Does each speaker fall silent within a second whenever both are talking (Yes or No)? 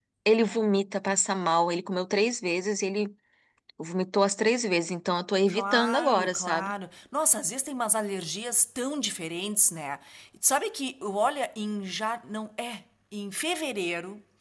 No